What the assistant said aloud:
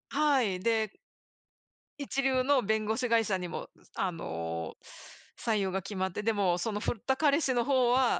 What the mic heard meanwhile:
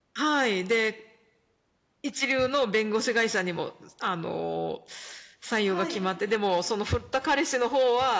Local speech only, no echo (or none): はい。